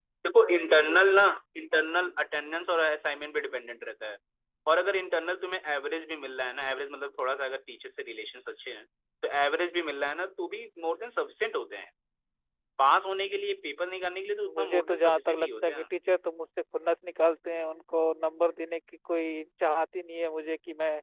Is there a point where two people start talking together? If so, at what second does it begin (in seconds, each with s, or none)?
14.4 s